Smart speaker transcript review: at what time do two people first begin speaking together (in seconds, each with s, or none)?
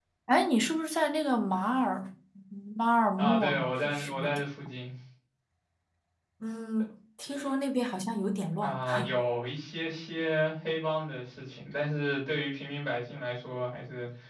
3.2 s